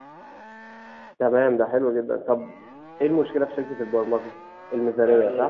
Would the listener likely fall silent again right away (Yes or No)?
No